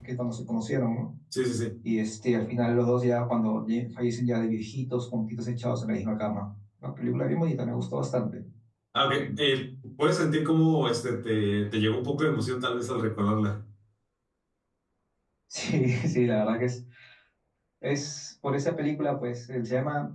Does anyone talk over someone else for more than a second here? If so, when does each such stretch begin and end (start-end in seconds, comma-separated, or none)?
none